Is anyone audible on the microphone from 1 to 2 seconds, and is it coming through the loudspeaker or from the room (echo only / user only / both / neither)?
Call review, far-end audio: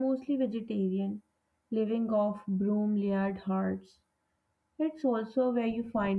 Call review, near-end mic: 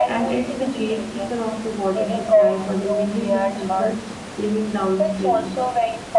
both